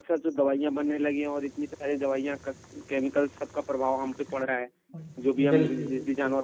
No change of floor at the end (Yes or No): Yes